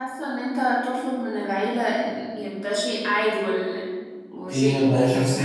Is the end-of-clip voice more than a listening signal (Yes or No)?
Yes